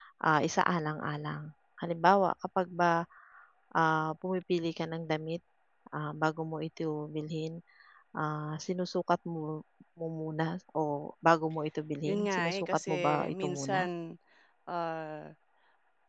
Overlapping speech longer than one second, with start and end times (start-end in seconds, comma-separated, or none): 12.0-13.9